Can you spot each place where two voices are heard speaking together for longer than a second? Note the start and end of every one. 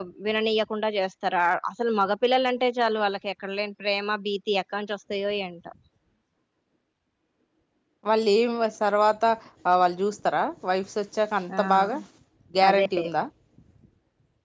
none

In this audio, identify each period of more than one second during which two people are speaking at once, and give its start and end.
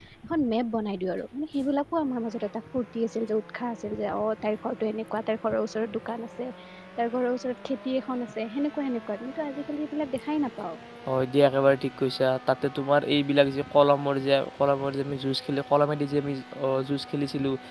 none

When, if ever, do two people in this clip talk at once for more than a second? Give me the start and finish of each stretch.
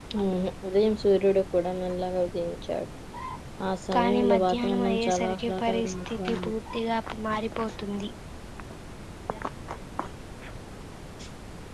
3.9-6.5

